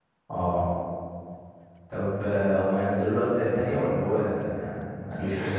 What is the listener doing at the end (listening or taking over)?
taking over